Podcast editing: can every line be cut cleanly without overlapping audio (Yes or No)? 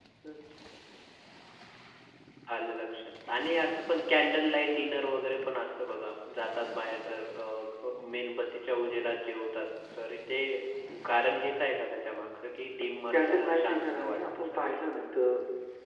No